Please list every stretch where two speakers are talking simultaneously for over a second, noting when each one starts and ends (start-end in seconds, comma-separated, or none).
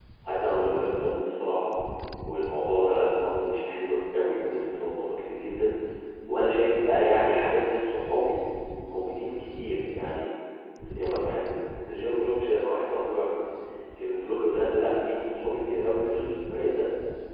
none